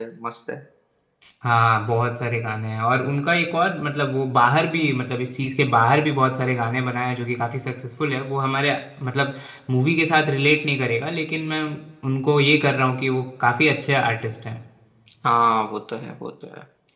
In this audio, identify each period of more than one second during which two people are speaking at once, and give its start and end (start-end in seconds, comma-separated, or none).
none